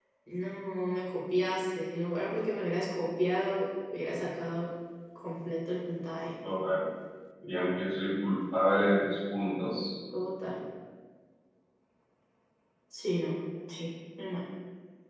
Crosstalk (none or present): none